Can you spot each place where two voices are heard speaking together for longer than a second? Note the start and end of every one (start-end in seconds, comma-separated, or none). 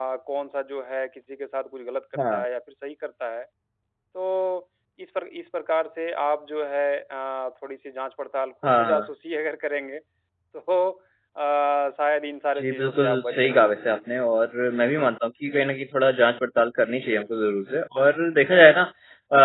12.6-14.0